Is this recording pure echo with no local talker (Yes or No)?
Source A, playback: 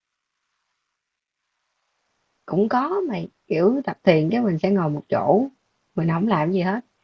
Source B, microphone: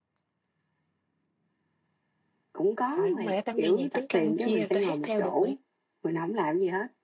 No